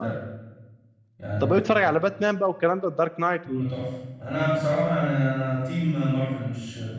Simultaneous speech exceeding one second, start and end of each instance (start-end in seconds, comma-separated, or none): none